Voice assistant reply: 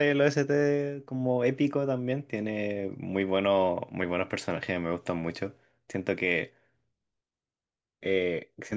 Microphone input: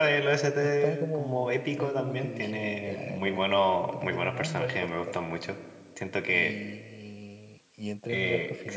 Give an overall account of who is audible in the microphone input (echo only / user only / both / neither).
both